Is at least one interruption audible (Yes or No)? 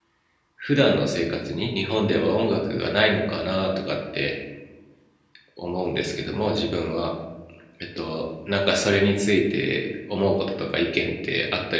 No